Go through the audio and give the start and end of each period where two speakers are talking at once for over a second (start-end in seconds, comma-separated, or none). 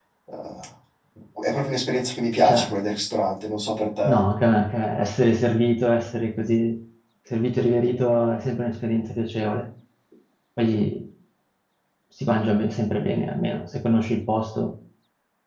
none